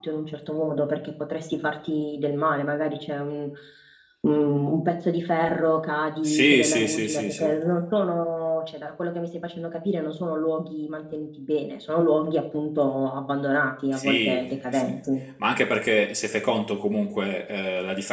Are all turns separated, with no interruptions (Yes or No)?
No